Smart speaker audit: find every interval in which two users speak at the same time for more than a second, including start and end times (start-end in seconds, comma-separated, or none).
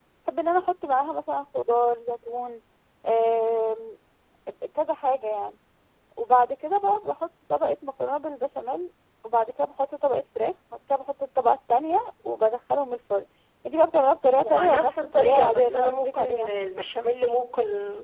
14.4-16.5